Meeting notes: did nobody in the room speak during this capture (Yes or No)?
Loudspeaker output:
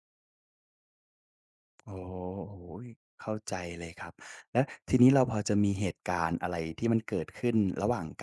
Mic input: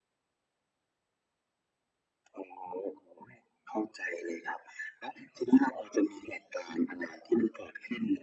Yes